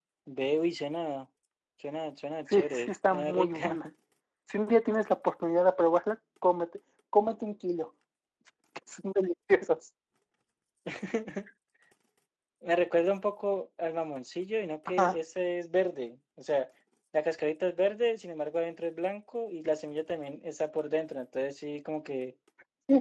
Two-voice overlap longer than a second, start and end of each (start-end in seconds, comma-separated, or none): 2.5-3.8